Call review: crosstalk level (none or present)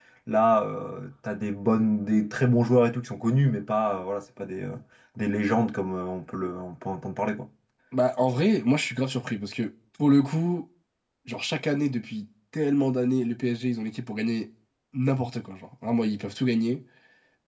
none